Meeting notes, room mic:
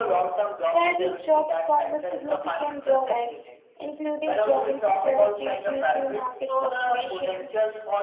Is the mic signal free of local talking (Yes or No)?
No